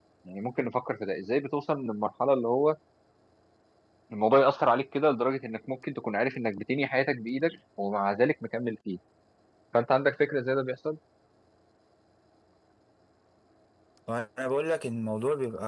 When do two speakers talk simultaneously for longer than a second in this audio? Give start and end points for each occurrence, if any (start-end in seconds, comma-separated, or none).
none